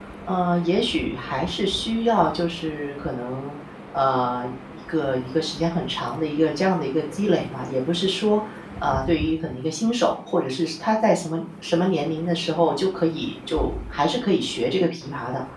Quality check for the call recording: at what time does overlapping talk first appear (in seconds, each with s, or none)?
none